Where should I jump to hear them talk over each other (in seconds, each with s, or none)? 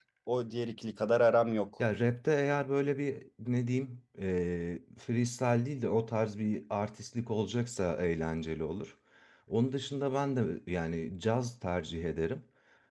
none